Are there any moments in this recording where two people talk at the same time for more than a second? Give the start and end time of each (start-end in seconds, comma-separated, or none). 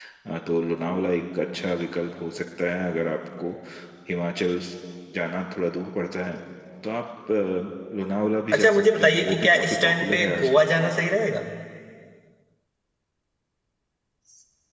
8.5-10.7